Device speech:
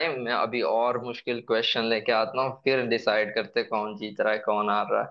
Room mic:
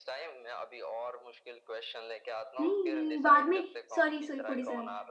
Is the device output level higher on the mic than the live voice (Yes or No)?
No